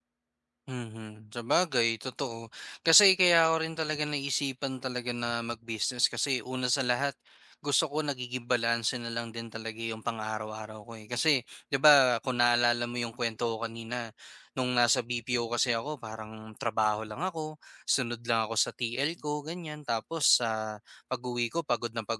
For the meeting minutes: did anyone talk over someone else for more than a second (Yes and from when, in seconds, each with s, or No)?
No